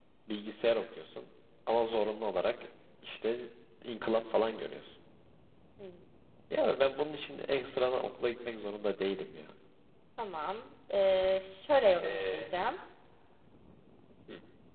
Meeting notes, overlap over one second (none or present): none